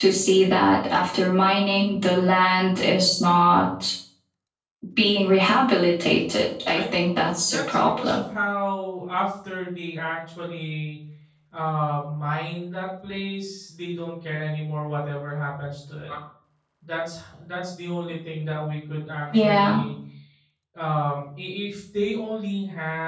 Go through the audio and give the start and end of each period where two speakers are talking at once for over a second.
6.7-8.2

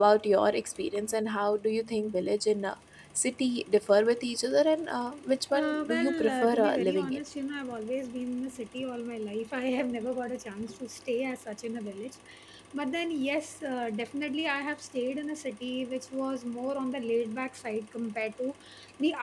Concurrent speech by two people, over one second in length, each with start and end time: 5.5-7.2

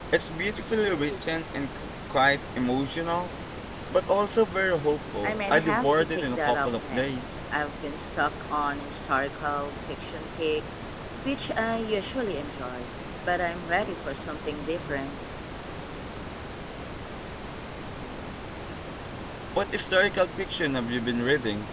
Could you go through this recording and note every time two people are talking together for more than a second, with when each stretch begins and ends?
5.2-7.3

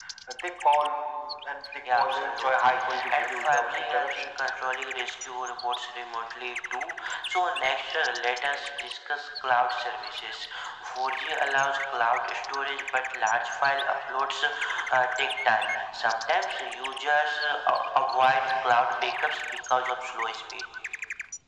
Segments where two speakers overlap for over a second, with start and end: 1.9-4.3

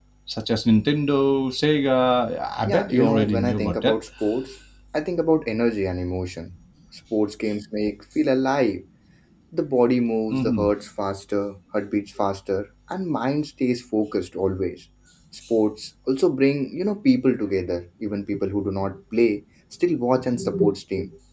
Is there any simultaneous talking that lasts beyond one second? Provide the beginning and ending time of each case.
2.6-3.9

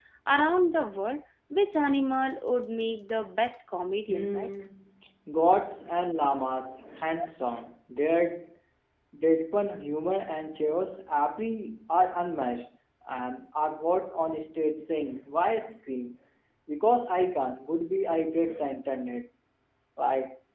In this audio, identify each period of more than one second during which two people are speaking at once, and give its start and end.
none

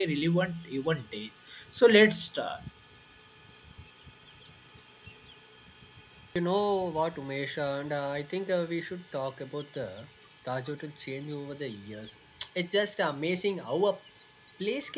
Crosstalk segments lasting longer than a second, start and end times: none

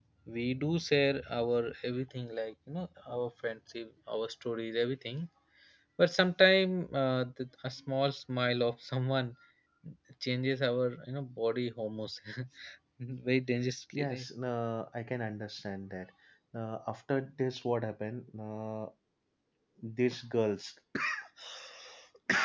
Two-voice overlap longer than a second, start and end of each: none

